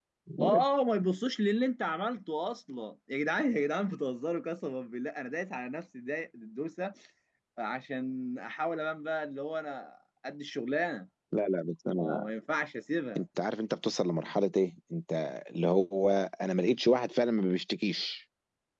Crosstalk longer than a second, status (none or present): none